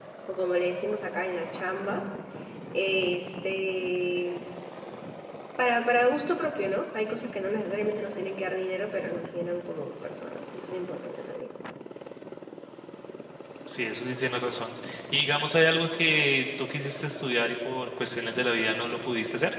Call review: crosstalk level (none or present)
none